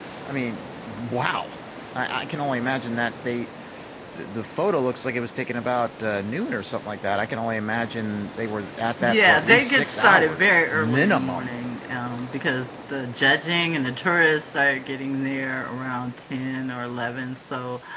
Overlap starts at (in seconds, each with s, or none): 9.0 s